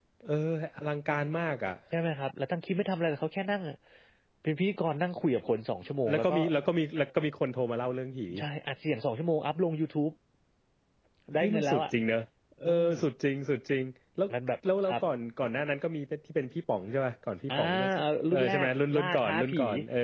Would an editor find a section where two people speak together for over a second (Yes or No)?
Yes